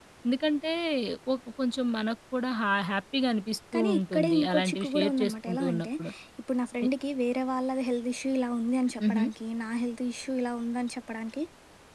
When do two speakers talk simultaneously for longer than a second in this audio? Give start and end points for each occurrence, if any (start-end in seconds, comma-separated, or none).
3.7-5.9